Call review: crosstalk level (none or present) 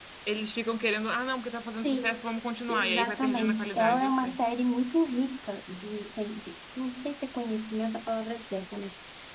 present